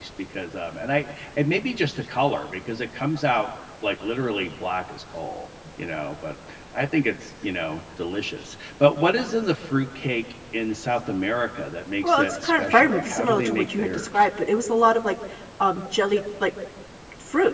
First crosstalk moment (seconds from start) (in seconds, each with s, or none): 12.0 s